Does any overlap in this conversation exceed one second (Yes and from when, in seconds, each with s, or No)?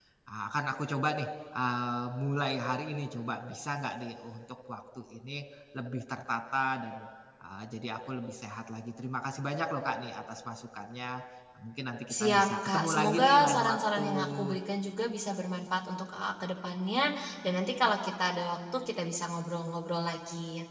Yes, from 12.1 s